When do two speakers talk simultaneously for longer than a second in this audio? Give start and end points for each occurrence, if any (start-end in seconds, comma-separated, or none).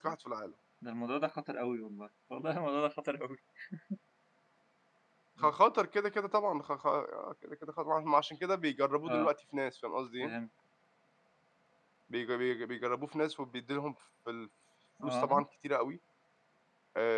none